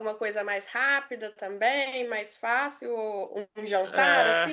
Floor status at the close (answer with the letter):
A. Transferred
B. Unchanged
A